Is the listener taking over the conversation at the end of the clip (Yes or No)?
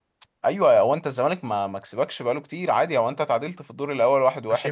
Yes